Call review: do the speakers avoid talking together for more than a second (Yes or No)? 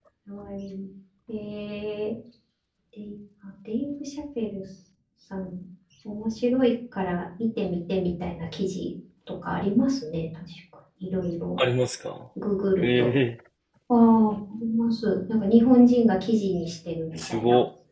Yes